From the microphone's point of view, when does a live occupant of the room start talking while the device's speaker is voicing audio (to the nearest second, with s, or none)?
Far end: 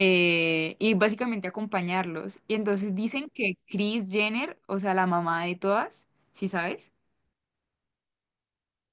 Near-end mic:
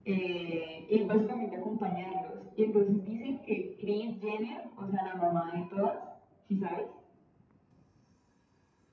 none